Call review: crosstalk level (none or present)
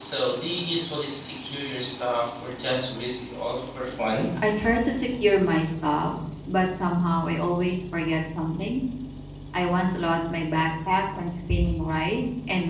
none